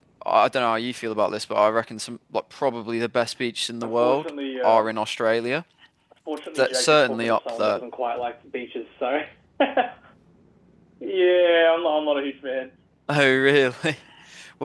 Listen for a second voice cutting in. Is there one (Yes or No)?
Yes